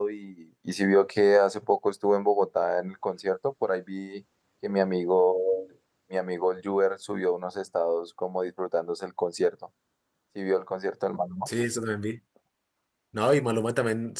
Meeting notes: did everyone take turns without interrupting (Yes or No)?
Yes